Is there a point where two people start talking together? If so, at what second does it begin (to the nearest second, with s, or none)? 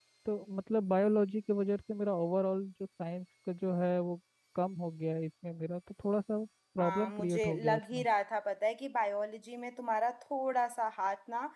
7 s